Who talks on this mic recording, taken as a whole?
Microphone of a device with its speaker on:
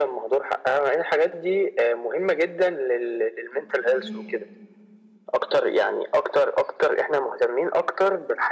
both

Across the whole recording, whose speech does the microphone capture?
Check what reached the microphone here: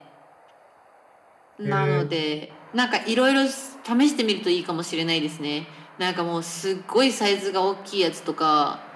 both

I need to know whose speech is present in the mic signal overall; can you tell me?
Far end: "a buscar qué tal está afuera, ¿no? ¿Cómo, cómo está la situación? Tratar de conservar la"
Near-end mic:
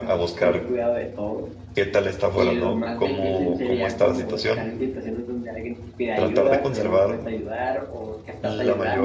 both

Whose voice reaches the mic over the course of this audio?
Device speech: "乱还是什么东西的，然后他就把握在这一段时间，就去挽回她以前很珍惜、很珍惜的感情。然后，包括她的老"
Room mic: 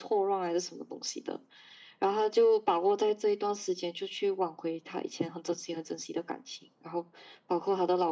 echo only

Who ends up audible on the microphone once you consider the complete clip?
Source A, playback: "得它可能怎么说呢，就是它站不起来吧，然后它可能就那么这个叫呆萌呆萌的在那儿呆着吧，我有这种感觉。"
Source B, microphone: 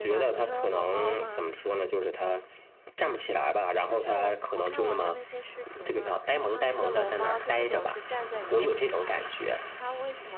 both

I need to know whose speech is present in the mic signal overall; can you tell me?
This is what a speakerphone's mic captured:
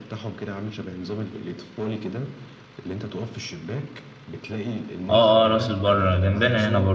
both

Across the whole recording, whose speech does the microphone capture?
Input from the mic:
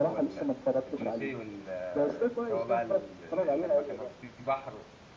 both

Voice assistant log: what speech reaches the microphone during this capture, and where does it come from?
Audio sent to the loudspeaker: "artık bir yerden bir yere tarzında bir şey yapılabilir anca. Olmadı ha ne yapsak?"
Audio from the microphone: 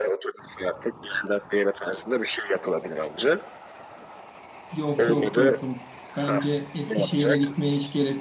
both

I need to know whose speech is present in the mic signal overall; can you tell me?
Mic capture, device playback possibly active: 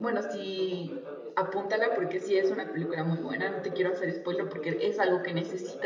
both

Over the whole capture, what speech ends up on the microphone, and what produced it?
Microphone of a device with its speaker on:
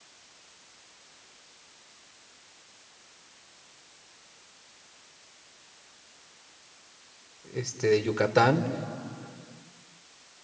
user only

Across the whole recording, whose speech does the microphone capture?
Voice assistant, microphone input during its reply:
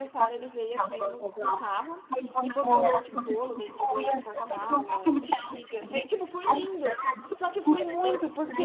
both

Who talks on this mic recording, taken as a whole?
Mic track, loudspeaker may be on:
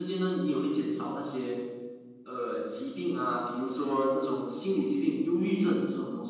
echo only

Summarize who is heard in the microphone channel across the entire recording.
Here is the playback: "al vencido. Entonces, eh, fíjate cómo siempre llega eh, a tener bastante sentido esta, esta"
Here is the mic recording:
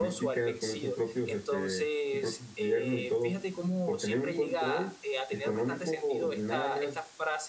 both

